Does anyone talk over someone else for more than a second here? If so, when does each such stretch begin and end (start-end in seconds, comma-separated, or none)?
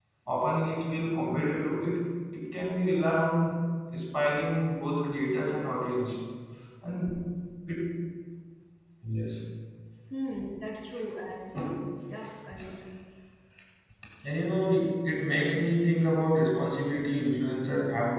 none